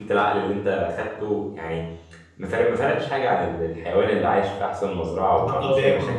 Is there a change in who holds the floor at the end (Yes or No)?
Yes